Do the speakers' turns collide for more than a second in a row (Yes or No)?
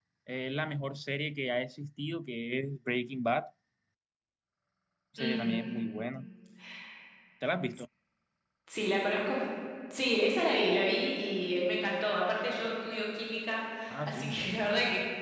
No